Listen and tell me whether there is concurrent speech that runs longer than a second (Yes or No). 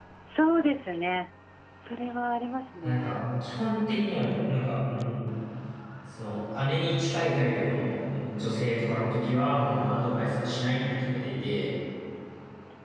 No